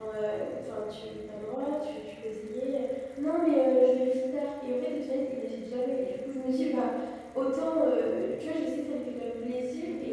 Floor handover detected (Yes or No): No